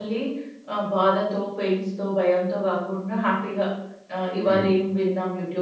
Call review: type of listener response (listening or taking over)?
listening